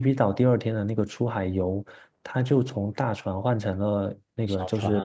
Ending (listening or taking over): listening